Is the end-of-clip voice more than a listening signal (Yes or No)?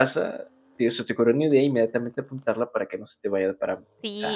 Yes